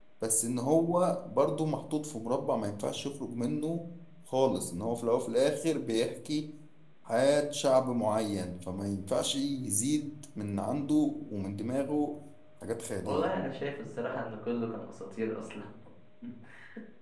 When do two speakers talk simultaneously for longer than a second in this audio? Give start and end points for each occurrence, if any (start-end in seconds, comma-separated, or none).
none